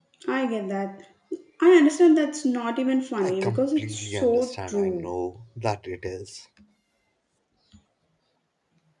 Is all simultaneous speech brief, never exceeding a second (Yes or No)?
No